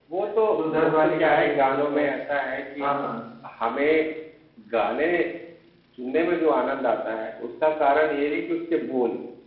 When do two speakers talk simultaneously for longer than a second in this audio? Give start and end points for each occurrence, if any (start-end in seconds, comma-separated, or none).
0.8-2.0